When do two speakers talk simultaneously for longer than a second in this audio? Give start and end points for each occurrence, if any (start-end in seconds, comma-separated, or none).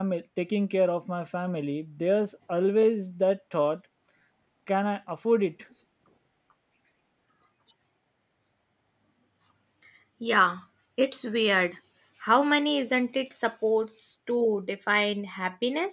none